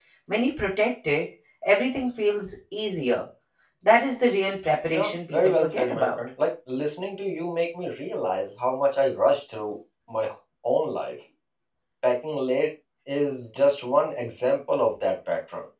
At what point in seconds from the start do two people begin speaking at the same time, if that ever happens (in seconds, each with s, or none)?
4.9 s